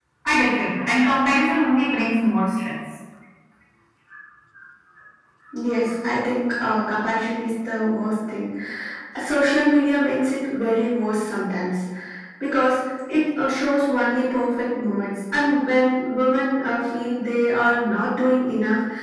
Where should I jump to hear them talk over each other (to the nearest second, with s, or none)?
none